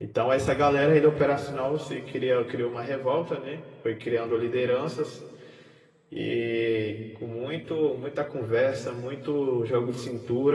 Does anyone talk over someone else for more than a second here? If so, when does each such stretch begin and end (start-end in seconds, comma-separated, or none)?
none